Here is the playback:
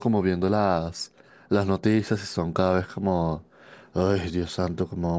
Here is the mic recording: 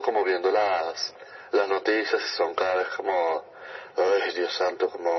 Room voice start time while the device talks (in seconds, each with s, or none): none